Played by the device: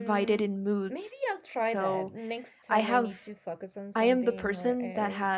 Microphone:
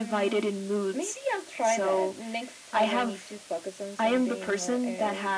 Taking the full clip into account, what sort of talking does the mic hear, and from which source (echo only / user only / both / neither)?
echo only